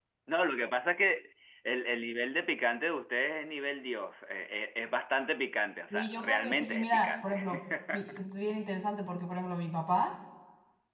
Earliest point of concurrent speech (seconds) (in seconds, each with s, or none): 5.9 s